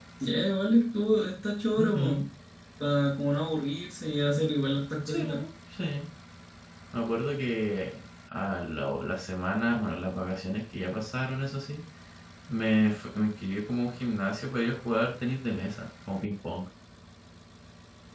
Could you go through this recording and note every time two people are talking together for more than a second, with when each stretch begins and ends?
none

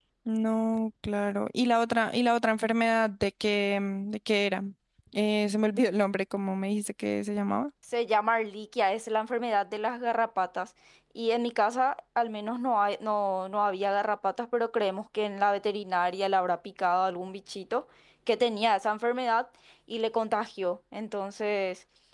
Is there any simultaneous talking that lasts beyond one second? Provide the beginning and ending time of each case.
none

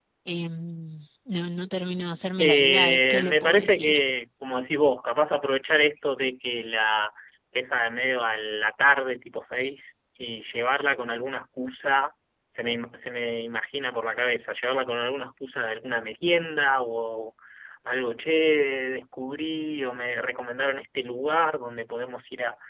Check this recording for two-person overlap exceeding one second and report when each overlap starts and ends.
2.4-4.0

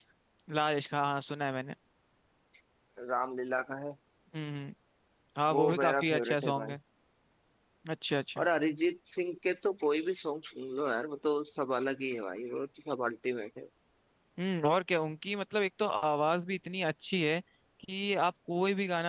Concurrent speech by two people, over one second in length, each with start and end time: 5.5-6.7

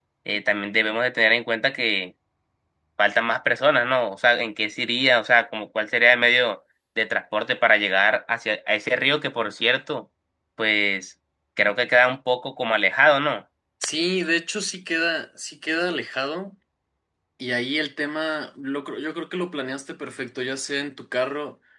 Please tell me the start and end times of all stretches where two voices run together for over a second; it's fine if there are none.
none

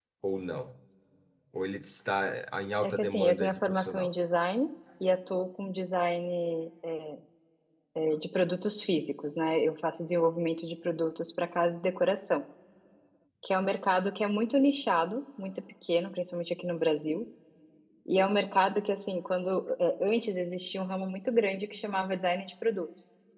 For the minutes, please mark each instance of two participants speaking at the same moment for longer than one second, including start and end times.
2.8-4.1

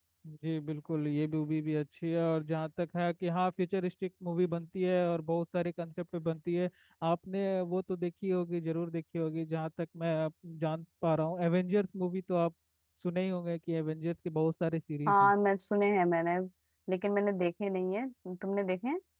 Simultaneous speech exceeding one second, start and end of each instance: none

